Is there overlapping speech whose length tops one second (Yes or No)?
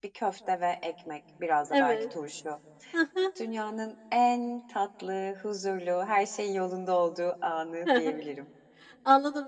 No